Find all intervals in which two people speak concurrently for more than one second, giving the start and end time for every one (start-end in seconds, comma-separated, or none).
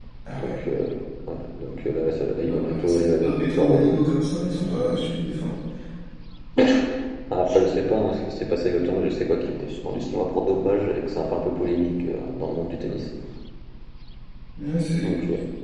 2.3-4.0